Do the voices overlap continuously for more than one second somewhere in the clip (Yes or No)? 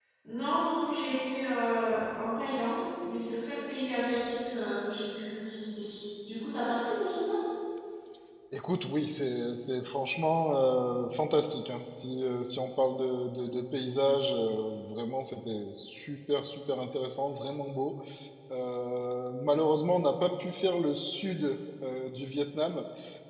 No